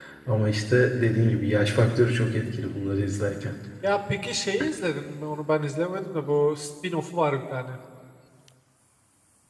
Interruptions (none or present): none